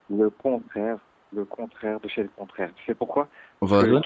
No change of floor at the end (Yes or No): Yes